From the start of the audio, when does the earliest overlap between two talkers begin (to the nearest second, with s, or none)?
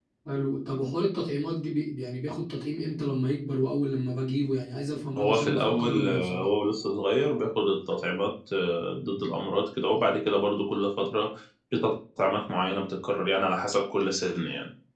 5 s